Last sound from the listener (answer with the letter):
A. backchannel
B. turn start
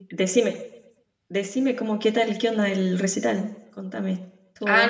B